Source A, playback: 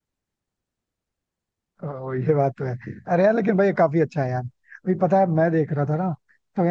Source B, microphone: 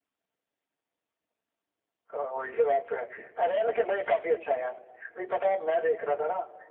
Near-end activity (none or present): none